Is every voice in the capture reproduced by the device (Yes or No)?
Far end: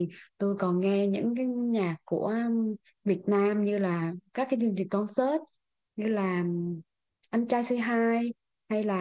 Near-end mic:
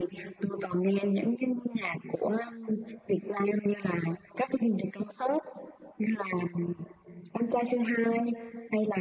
Yes